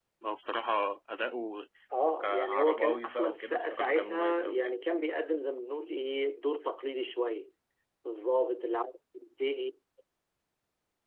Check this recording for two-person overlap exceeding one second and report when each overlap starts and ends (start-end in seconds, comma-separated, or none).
2.2-4.7